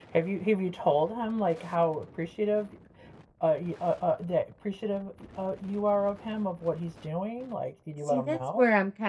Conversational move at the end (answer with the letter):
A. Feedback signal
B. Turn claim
B